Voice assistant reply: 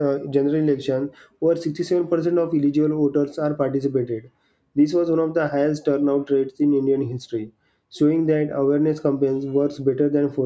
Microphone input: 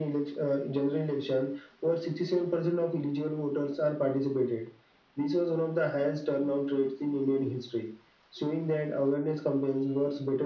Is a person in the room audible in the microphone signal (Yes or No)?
No